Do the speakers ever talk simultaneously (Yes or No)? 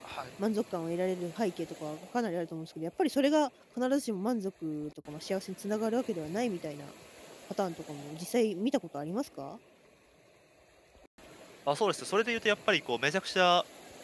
No